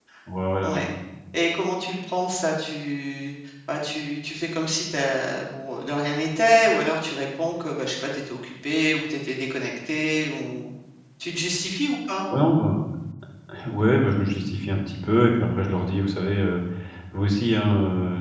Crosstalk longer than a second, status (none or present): none